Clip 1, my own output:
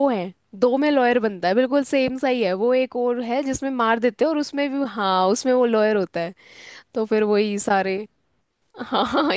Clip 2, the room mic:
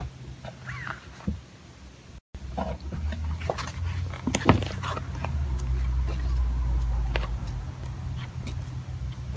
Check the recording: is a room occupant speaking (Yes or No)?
No